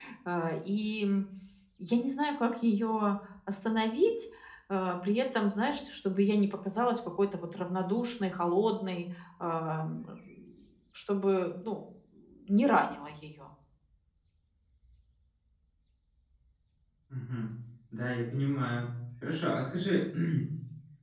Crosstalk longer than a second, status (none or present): none